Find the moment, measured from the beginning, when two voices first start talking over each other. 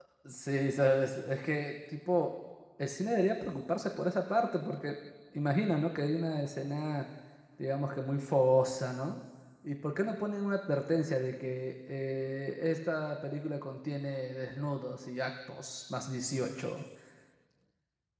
none

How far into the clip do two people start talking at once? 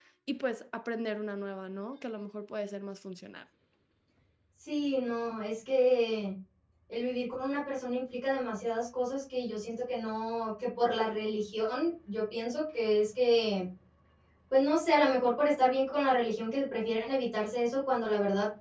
none

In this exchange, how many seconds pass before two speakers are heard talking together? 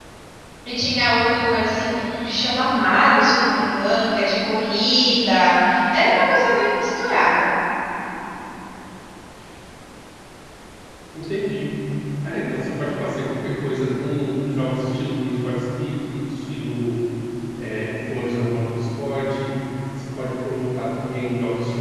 none

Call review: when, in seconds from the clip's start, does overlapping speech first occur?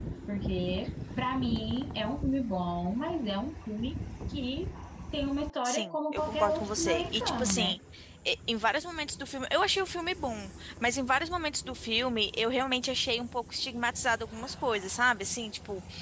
5.6 s

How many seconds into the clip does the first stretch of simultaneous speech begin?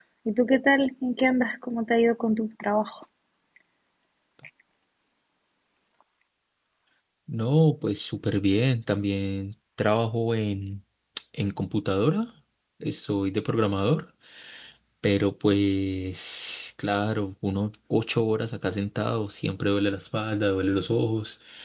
none

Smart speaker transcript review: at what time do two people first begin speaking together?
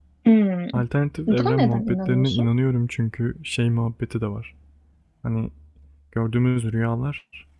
1.3 s

